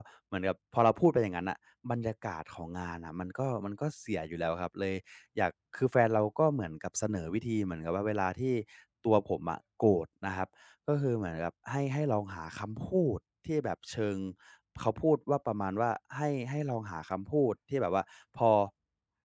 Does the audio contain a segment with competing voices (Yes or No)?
No